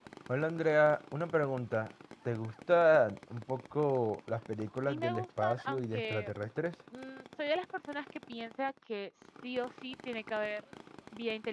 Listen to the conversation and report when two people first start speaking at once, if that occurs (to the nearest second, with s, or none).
5 s